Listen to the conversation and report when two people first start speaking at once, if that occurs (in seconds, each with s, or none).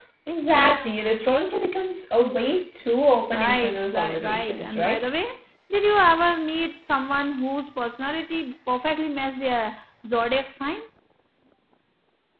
3.3 s